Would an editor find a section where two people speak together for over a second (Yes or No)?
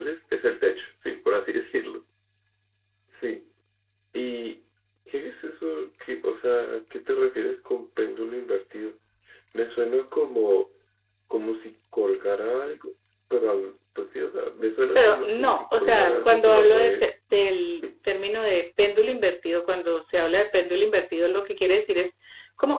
Yes